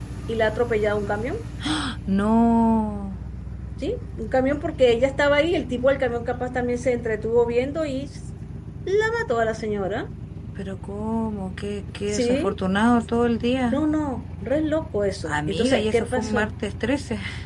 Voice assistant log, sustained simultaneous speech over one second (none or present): present